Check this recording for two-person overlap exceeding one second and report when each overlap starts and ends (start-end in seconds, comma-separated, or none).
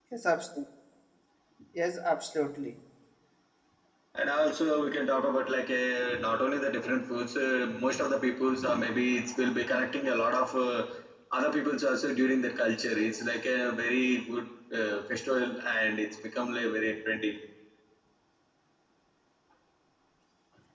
none